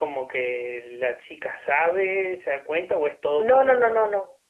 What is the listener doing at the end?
taking over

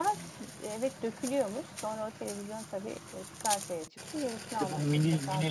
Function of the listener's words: taking over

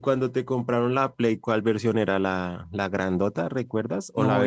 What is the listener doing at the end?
taking over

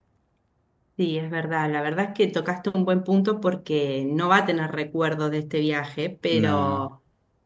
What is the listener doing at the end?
listening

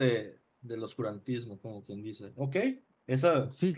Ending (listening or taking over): taking over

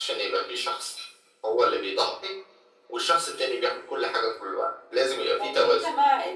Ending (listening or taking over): taking over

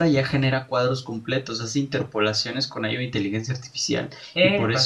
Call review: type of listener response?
listening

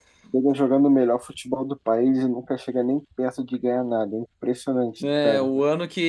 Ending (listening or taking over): taking over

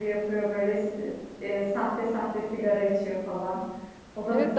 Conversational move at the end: taking over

